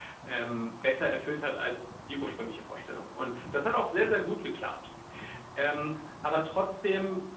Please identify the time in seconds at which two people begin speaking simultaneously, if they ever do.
none

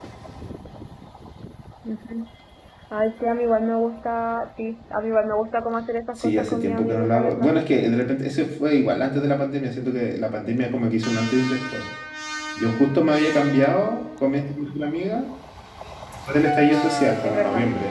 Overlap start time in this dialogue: 6.2 s

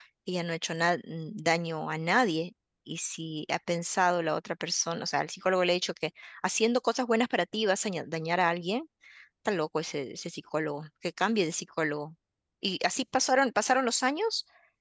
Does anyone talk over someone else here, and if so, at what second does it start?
none

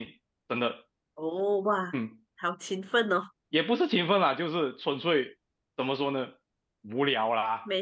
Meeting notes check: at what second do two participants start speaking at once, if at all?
none

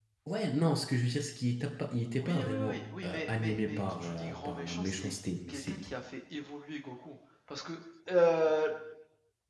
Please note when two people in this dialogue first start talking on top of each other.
2.2 s

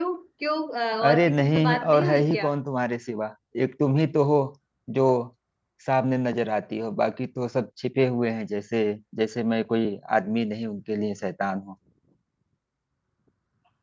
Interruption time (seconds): 1.0 s

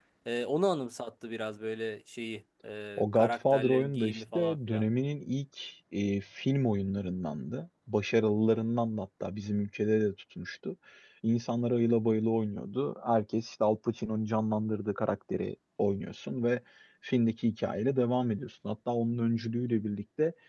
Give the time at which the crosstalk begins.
3.0 s

